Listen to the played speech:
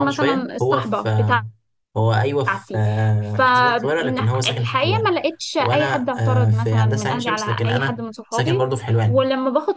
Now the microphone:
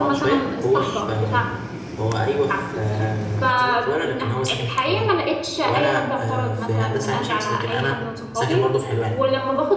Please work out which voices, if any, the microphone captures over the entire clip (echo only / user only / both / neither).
echo only